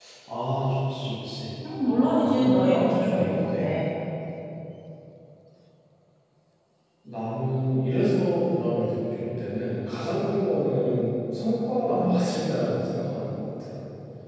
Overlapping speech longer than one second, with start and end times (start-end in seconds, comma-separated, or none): 1.9-3.6